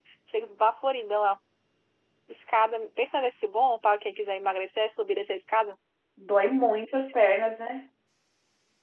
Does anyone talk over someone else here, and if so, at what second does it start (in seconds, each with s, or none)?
none